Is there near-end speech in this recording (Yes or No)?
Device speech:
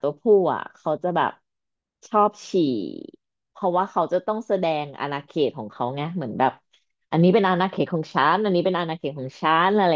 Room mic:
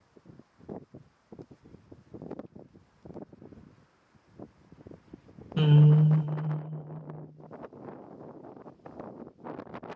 Yes